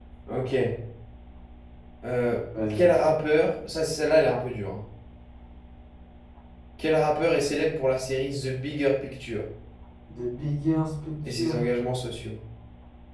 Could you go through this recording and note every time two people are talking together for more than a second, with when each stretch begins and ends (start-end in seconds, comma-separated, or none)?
none